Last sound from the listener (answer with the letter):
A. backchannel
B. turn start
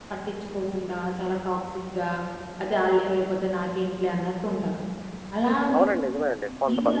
B